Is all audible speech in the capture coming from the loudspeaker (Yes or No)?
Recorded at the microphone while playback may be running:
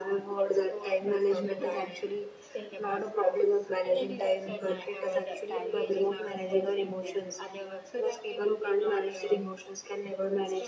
No